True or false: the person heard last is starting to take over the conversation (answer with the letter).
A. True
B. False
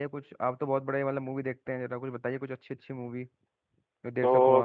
A